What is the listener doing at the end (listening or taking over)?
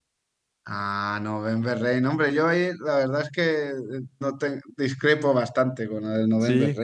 listening